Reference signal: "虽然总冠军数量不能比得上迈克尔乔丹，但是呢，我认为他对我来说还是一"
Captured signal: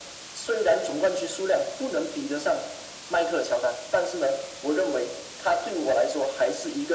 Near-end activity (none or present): none